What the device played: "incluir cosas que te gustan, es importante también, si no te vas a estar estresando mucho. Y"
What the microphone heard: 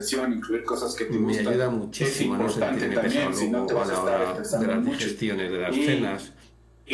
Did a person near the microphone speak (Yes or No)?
Yes